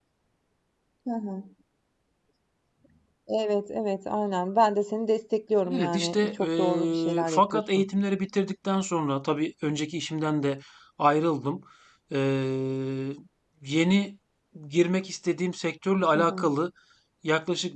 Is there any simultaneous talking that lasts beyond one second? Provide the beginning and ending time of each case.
5.8-7.8

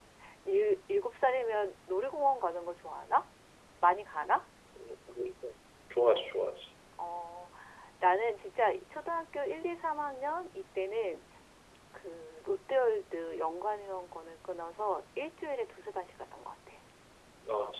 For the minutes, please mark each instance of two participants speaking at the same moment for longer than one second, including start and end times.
none

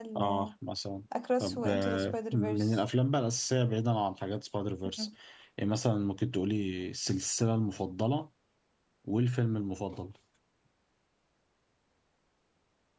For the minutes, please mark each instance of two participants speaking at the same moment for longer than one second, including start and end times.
1.4-2.8

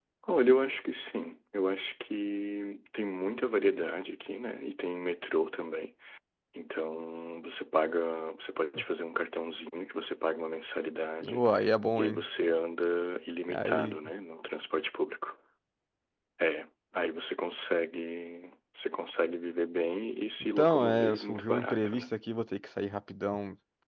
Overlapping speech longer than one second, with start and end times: 20.6-22.1

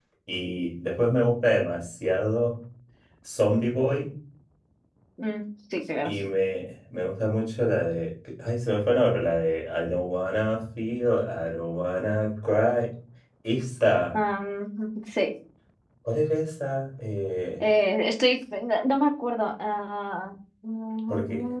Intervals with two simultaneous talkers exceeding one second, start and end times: none

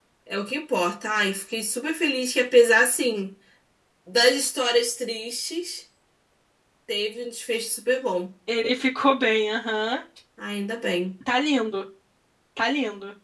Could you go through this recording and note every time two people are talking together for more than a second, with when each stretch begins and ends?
none

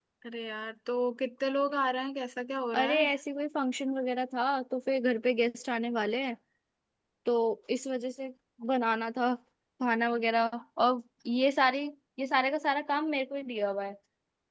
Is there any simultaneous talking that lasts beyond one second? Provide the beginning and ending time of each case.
none

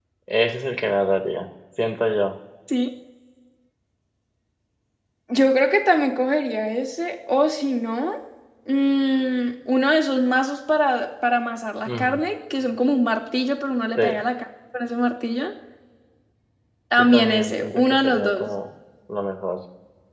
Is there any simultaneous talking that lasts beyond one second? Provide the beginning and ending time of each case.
17.0-18.5

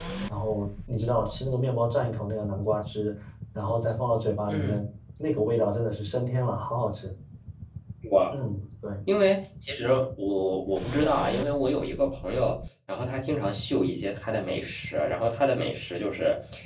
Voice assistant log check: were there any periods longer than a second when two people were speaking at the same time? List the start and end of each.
none

